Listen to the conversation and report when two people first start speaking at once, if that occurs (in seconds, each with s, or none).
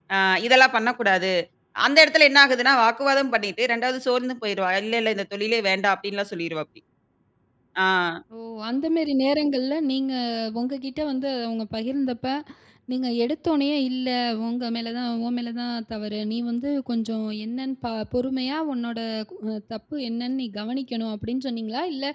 none